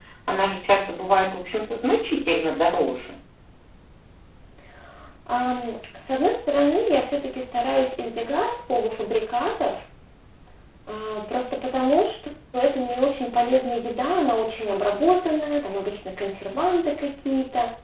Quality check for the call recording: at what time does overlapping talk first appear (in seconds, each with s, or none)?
none